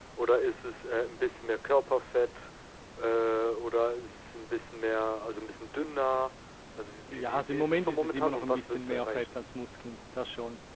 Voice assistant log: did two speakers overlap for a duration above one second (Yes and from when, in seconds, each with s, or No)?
Yes, from 7.1 s